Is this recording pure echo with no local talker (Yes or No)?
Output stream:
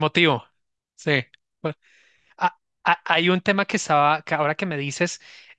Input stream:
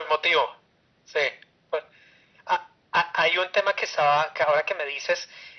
Yes